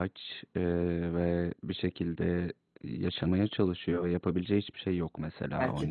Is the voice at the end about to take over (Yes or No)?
Yes